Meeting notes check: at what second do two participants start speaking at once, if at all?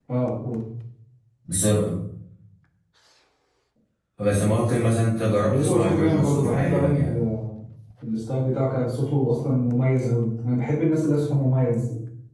5 s

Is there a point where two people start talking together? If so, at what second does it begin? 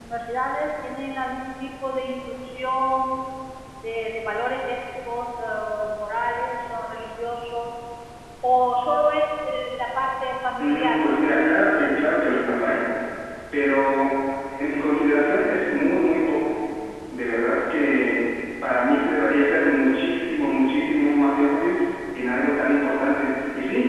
11 s

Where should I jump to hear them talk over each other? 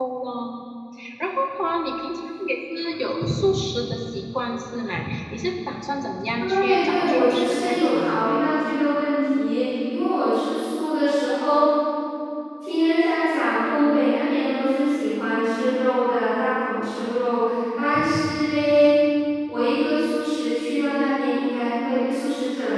6 s

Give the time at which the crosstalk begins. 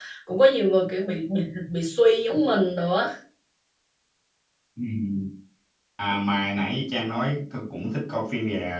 none

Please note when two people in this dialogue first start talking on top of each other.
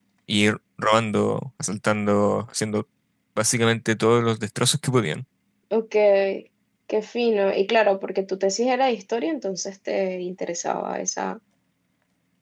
none

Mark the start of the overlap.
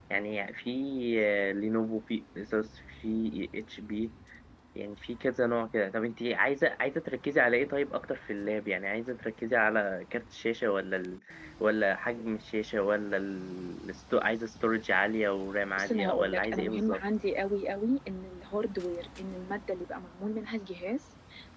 16 s

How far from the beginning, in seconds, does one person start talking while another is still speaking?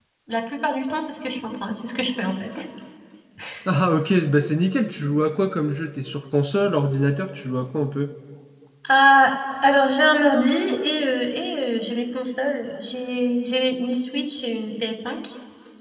none

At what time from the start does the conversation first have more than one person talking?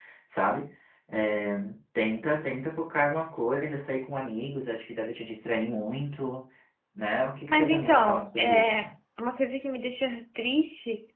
7 s

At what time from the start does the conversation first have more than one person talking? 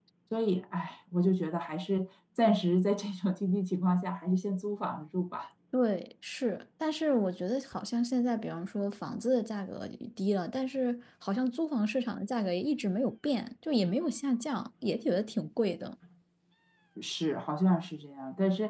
none

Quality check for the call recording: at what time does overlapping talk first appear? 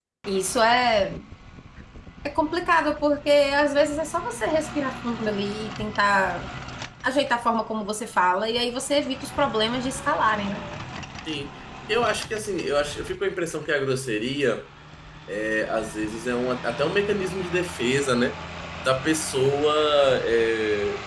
none

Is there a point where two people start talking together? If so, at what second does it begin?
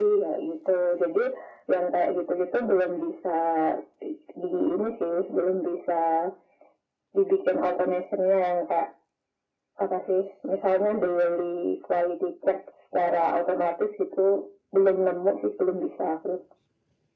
none

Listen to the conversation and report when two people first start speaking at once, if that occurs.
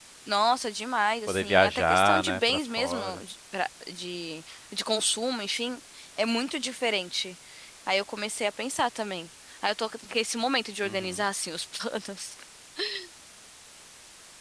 1 s

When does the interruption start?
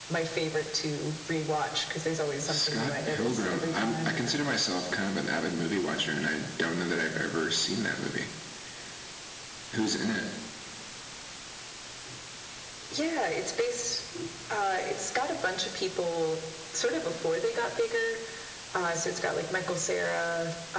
2 s

